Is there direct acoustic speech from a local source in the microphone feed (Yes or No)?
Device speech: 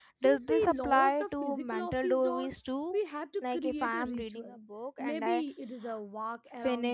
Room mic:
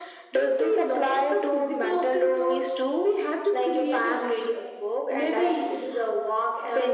No